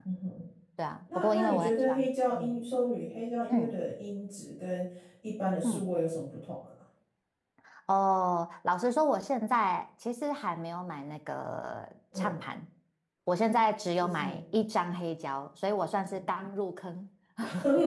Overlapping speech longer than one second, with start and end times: 1.2-2.6

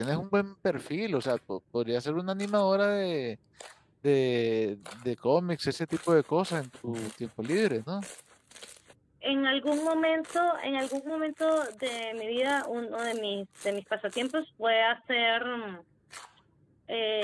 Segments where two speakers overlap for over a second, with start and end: none

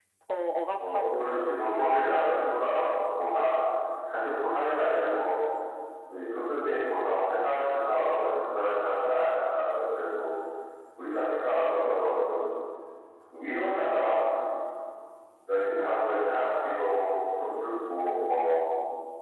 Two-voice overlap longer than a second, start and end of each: 0.8-3.0

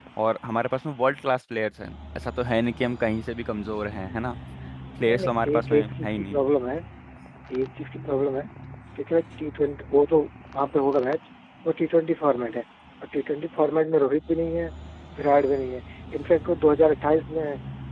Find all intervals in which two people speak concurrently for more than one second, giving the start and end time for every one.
5.1-6.4

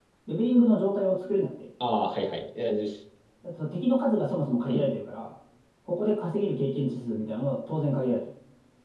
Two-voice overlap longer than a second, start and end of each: none

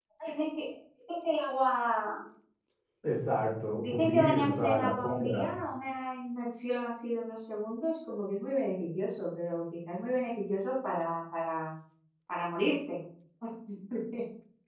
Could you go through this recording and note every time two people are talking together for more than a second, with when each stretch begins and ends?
3.8-5.5

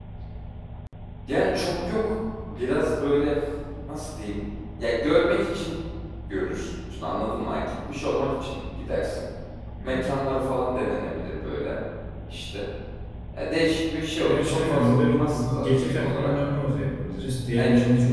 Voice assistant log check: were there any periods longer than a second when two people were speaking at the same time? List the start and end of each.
14.3-16.3

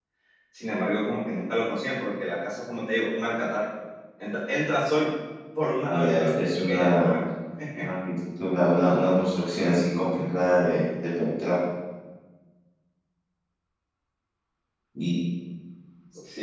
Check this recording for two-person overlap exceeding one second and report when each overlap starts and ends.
5.8-7.2

